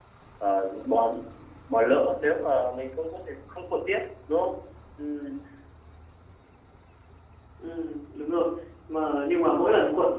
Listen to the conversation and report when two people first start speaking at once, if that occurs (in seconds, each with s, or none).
none